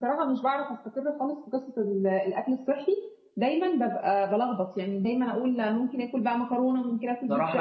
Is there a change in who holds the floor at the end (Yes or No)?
Yes